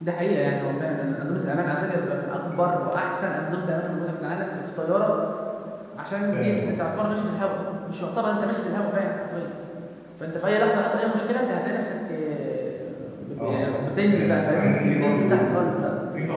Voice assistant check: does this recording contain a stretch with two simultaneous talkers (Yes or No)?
Yes